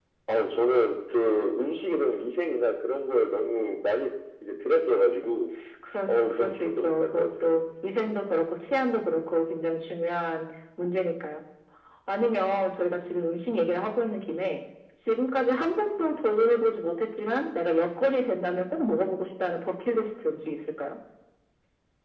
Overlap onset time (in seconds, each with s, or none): 6.1 s